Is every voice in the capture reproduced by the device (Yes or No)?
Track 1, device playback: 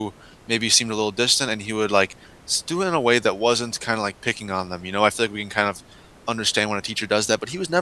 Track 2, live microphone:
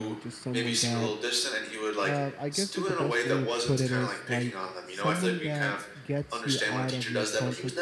No